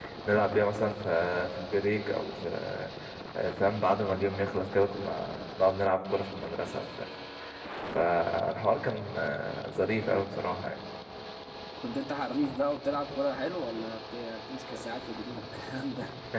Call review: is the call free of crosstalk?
Yes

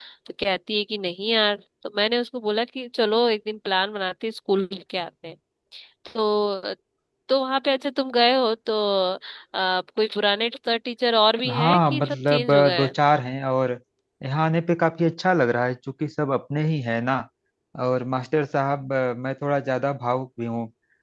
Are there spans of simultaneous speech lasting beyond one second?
Yes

